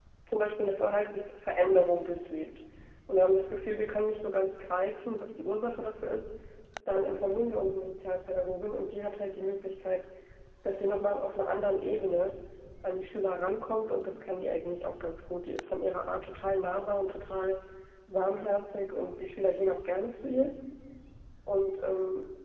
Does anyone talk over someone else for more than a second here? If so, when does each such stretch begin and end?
none

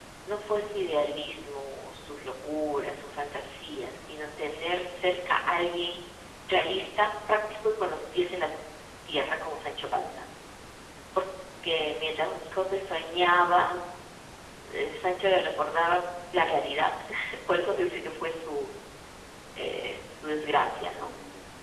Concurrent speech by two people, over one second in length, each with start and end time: none

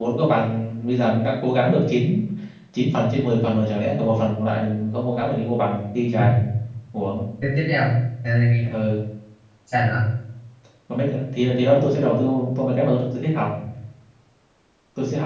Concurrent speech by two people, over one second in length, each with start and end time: none

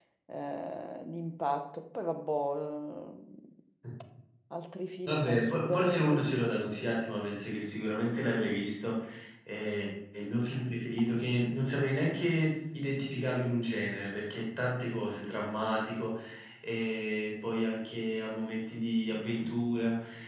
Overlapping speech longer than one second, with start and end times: 5.1-6.4

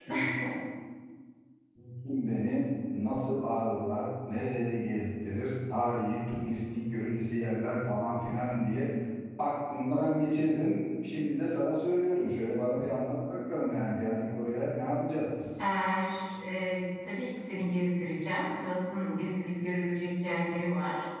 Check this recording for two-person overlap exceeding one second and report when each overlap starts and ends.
none

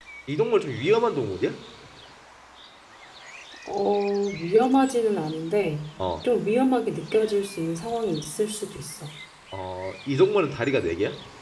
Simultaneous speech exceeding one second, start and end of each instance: none

